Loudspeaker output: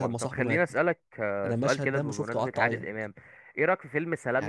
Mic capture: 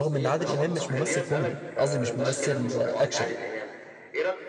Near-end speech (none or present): present